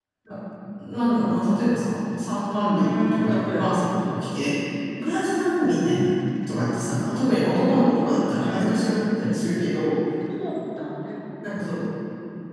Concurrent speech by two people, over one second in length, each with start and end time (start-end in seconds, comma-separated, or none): 2.8-4.2